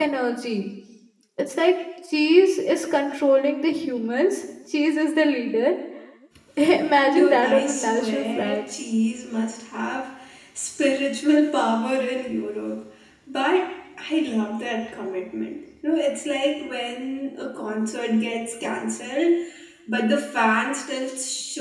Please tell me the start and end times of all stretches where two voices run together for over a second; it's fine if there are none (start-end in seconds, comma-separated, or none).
7.1-8.6